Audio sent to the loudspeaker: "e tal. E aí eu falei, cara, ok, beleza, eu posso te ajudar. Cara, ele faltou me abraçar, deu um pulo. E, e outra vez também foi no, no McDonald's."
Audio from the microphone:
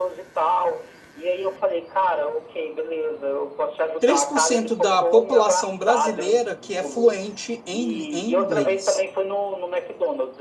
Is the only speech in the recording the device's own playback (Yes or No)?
No